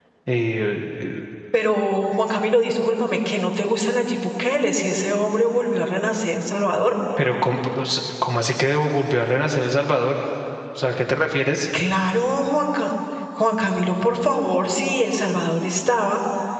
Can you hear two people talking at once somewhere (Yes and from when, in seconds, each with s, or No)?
No